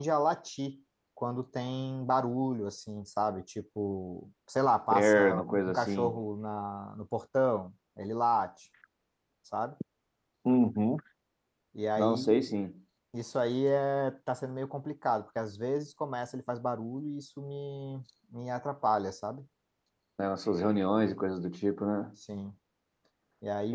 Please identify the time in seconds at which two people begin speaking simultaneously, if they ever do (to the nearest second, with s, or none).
5 s